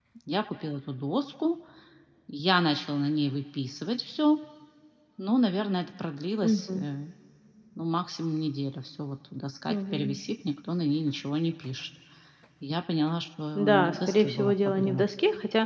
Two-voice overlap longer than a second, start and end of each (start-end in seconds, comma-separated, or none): 13.6-15.1